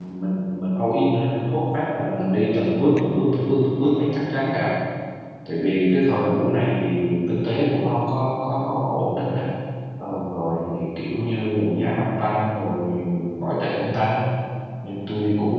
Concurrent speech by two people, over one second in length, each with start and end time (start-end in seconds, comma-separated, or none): none